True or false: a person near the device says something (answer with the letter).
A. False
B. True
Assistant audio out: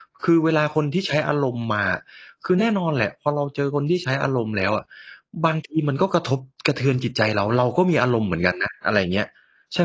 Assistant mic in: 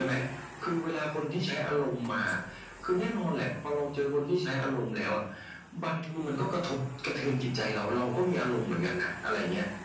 A